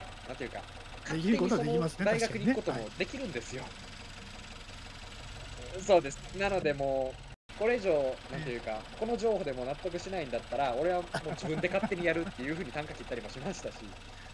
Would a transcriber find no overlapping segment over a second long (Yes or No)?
No